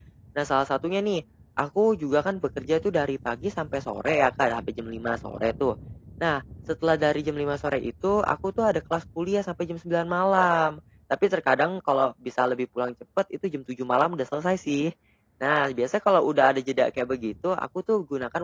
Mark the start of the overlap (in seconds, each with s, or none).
none